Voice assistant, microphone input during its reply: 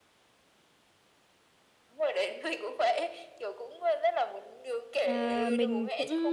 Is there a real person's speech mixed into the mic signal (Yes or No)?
Yes